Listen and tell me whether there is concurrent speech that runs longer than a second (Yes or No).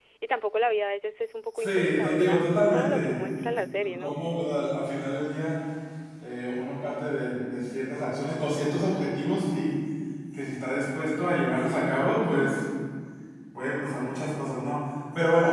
Yes